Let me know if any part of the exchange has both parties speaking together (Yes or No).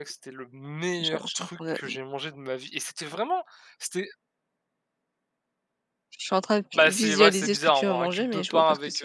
Yes